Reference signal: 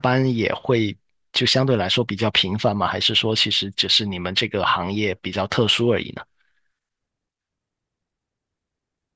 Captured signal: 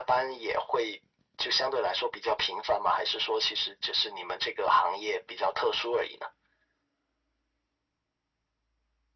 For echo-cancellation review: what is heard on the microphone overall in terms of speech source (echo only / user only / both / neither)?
echo only